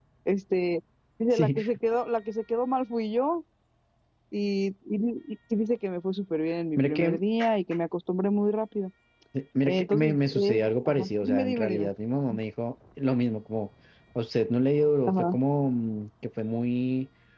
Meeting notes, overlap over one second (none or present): present